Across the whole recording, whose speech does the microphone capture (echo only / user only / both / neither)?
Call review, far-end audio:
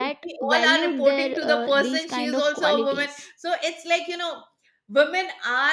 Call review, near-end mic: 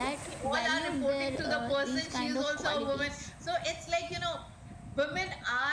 echo only